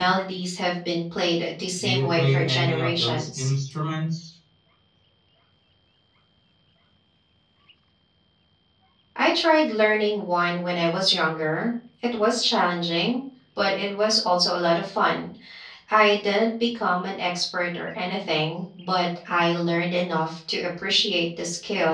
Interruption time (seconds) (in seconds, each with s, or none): 1.8 s